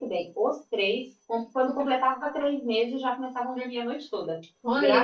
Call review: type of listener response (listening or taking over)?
taking over